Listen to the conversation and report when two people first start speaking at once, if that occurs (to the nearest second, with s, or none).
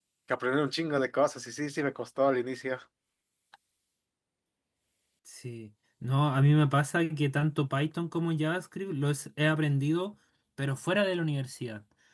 none